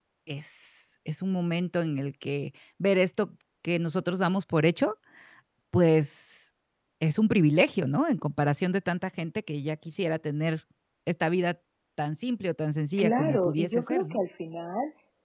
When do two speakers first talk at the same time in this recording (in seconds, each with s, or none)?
13.0 s